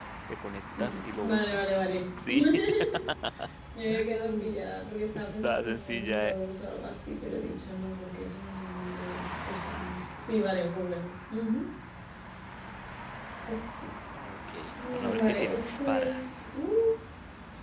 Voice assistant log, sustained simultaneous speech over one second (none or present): present